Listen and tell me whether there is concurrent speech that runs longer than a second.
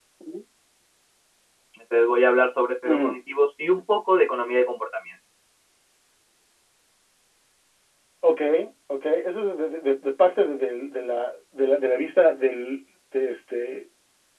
No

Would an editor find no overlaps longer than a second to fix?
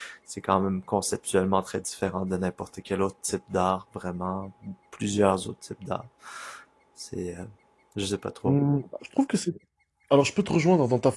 Yes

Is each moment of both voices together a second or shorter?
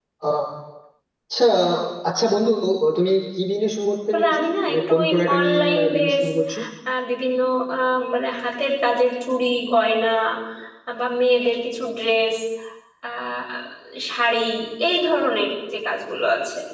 No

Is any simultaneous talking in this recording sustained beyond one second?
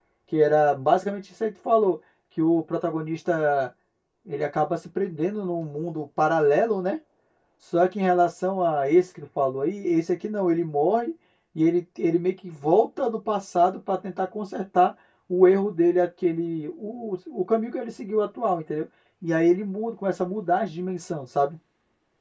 No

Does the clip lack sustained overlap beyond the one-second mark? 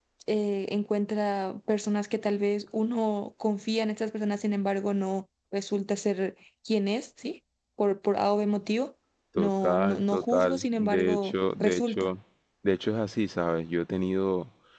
No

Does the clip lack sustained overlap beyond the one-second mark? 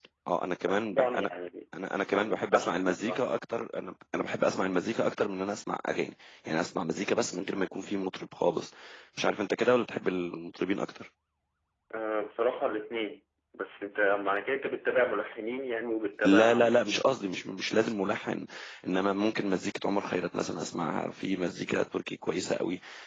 No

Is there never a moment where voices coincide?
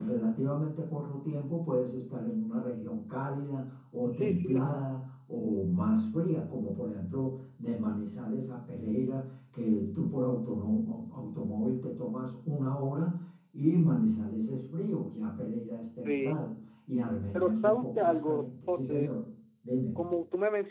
No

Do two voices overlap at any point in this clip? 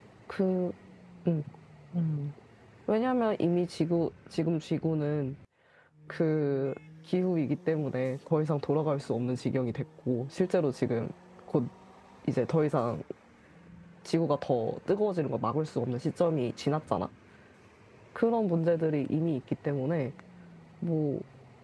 No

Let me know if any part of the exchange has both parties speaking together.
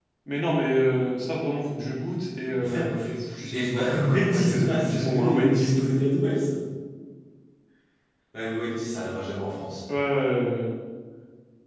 Yes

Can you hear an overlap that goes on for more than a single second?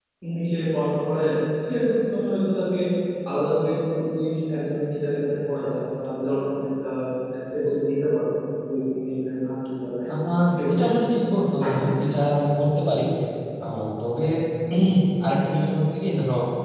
No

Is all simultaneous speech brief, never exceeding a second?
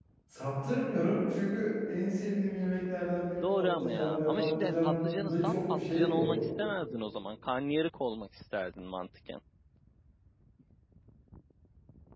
No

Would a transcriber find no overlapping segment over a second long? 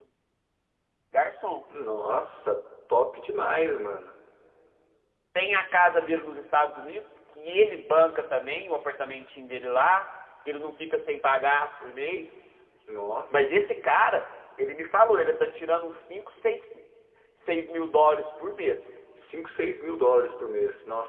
Yes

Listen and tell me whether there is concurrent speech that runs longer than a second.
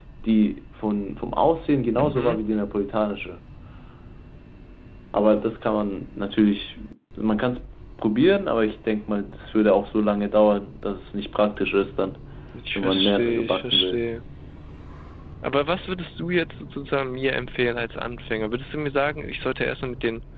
Yes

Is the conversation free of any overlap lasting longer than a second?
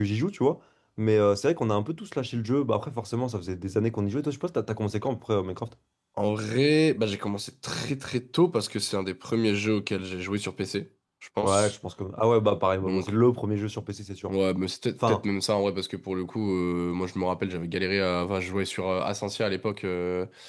Yes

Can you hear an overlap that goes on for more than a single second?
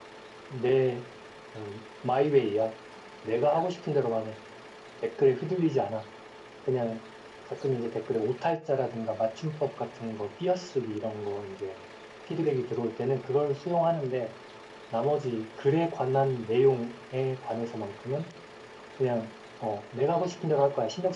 No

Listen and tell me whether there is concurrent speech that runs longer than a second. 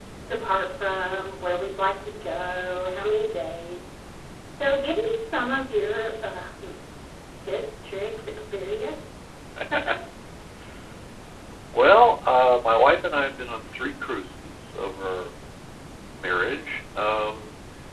No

